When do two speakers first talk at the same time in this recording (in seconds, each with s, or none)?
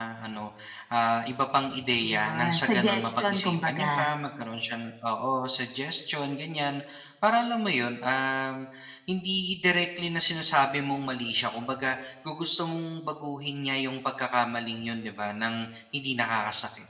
2.0 s